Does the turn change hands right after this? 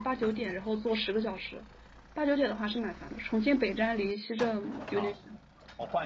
Yes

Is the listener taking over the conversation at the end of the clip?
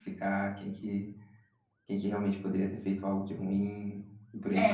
Yes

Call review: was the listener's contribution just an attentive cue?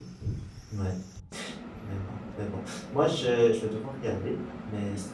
Yes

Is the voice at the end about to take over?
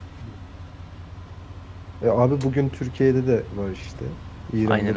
Yes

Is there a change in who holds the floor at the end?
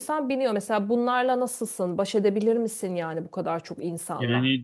Yes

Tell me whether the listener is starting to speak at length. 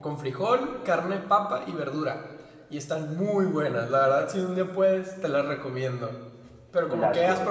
Yes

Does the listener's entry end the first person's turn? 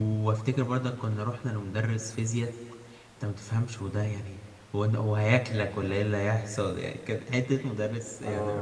Yes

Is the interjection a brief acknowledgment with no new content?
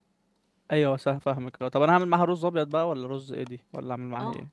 No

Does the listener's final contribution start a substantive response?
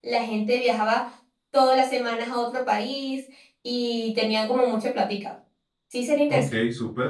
Yes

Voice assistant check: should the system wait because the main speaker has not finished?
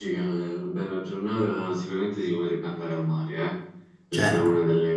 Yes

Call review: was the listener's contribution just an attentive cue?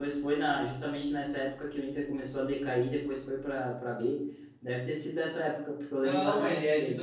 No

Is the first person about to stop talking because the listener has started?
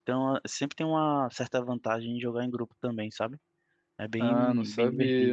Yes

